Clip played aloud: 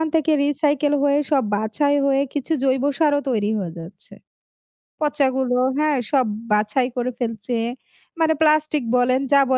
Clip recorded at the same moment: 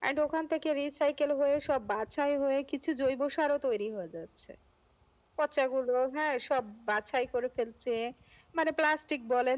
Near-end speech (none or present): none